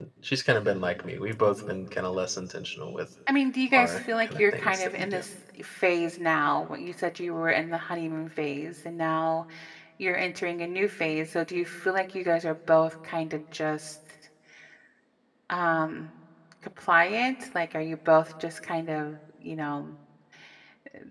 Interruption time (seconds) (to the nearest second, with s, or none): 4 s